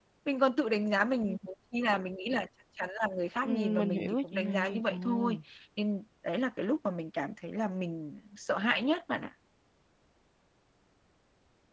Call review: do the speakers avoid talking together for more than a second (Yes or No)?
No